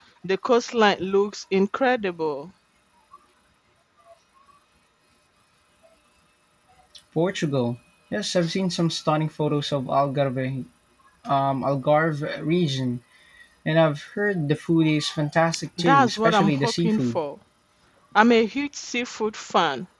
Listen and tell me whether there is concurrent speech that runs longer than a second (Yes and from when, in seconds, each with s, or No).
Yes, from 15.8 s